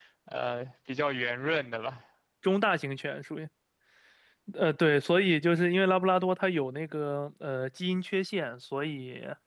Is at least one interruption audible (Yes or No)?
No